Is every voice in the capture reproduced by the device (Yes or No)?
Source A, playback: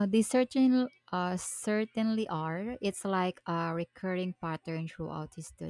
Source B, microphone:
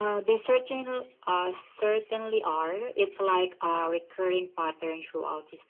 Yes